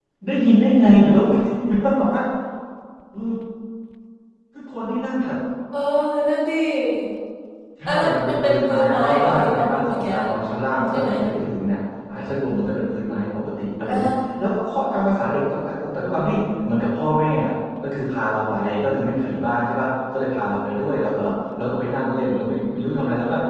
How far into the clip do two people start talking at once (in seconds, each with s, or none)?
7.9 s